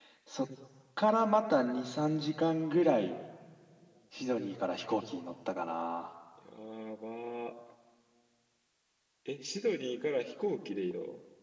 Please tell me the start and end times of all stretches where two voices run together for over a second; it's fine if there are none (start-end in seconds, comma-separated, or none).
none